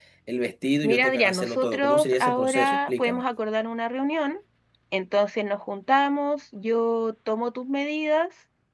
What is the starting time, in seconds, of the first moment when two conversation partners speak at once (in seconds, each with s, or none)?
0.8 s